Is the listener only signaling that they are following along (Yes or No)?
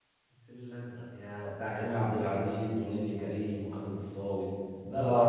No